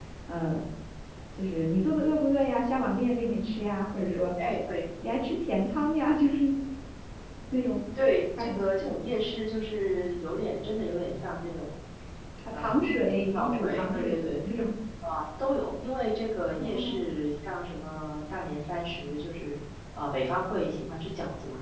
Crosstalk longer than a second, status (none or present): present